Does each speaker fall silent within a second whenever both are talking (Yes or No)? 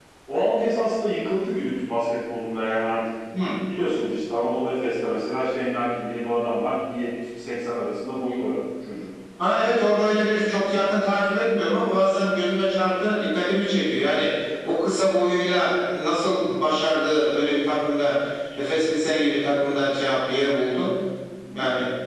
Yes